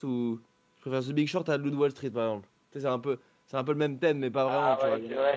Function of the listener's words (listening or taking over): taking over